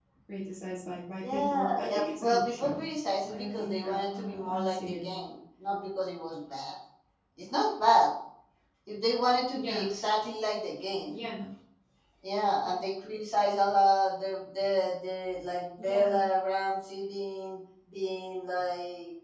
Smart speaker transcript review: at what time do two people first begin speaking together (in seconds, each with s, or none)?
1.3 s